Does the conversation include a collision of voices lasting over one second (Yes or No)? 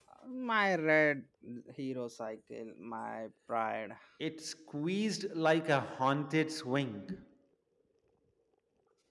No